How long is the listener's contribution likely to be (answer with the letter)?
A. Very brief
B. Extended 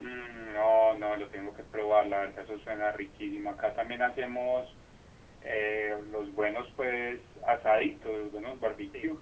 A